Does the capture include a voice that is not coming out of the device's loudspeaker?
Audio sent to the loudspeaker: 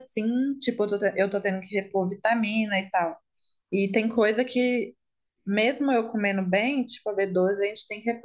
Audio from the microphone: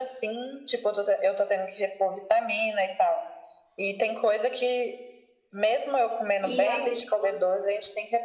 Yes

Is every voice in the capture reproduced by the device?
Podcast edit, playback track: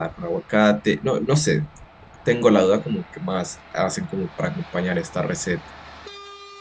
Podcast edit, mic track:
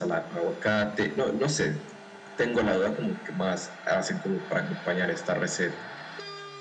Yes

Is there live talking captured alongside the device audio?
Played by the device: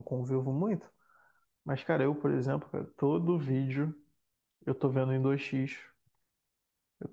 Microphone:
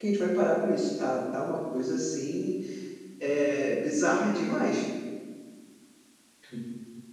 Yes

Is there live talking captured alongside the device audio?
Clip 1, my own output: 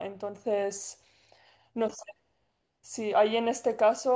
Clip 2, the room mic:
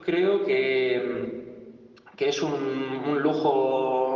Yes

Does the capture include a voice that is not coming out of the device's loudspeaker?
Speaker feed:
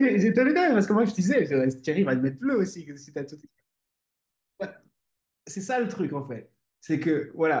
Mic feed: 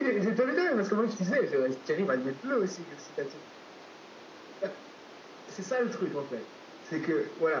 No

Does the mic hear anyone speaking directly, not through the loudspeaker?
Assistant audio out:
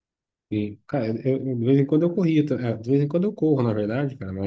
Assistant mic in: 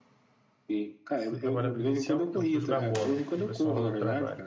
Yes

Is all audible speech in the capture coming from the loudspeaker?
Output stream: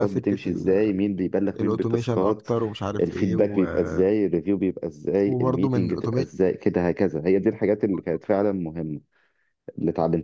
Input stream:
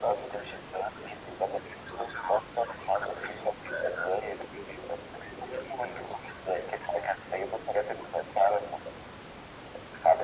Yes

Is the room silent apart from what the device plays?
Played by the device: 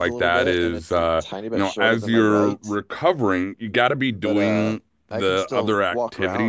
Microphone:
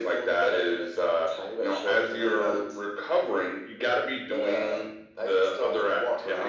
Yes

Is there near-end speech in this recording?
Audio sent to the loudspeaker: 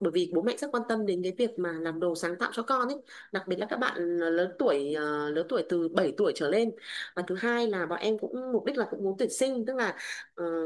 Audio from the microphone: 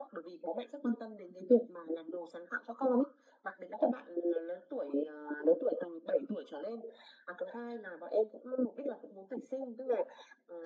No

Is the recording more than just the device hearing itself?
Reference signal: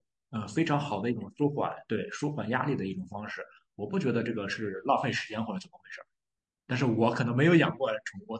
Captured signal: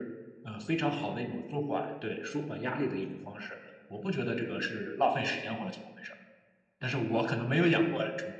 No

